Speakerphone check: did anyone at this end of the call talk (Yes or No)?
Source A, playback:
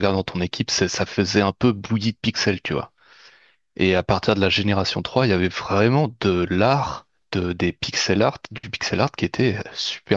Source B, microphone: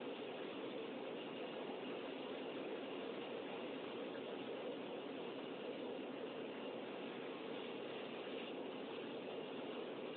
No